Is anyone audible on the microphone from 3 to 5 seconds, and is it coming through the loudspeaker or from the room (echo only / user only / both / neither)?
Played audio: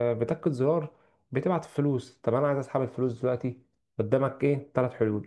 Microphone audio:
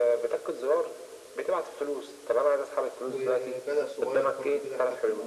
both